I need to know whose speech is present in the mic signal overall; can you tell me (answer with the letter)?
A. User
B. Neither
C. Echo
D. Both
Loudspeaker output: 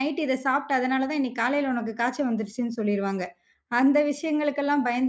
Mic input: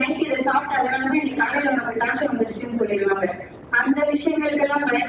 C